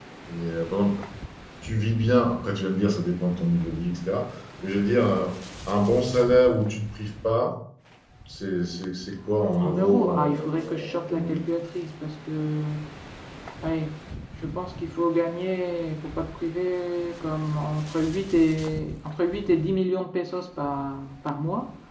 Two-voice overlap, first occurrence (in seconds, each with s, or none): 9.6 s